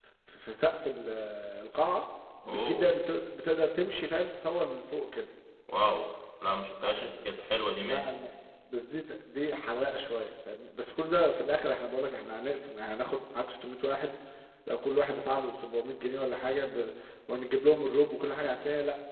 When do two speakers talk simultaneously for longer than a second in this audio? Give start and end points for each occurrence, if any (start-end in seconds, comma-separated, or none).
none